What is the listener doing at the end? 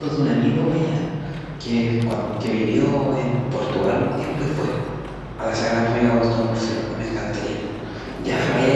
listening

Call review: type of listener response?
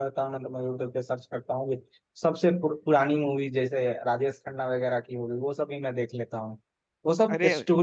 listening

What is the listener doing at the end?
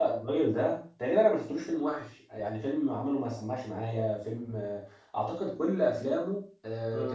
listening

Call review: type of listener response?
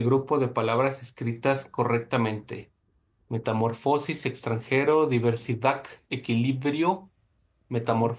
listening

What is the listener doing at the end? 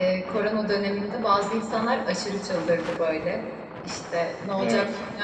listening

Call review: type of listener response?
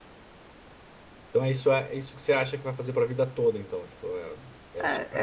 taking over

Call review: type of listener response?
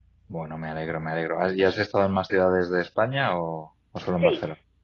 taking over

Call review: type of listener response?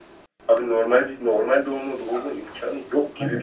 taking over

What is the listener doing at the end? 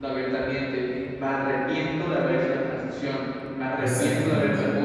listening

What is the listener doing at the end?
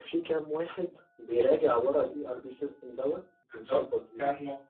taking over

